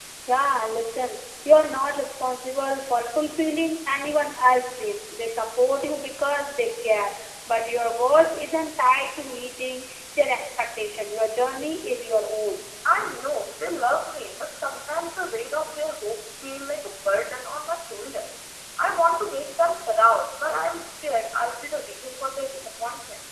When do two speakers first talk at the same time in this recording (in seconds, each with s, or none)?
none